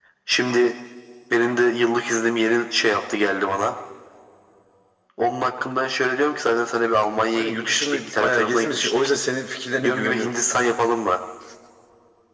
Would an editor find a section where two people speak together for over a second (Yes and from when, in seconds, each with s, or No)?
Yes, from 7.3 s